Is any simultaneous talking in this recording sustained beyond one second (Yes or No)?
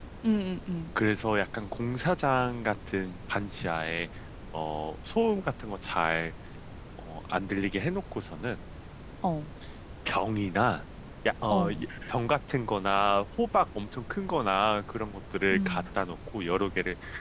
No